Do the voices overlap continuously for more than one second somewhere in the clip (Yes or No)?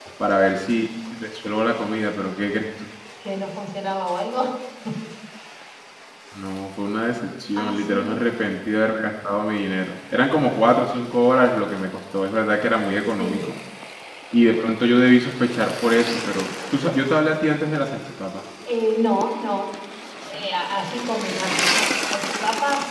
No